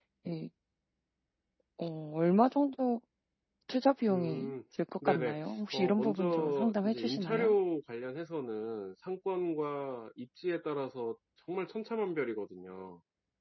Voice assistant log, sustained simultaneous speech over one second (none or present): present